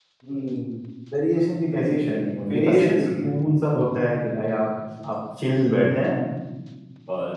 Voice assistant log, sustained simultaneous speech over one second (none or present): present